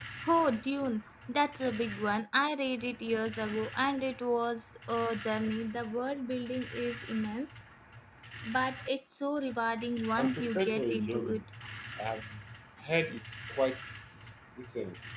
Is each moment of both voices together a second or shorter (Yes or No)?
No